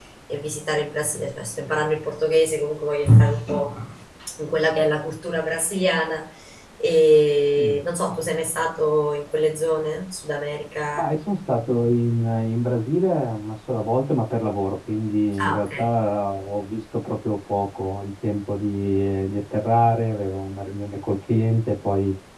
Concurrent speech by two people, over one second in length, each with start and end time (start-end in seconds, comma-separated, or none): none